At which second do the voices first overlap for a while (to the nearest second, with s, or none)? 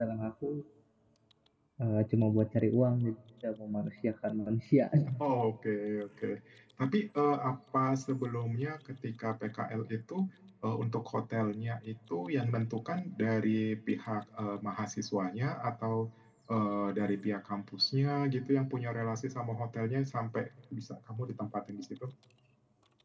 none